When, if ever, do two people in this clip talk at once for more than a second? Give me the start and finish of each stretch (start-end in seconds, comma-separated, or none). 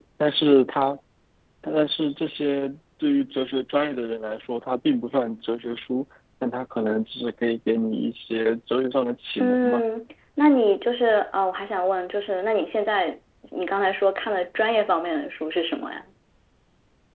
none